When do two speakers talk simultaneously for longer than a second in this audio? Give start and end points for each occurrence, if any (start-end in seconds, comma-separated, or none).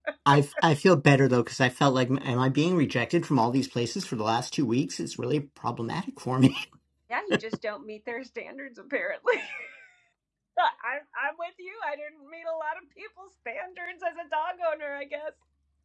none